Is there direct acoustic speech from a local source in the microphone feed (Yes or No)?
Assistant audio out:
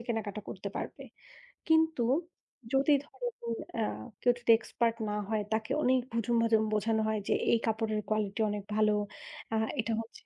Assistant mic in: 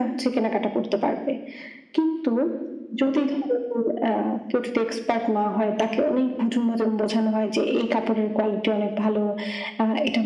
No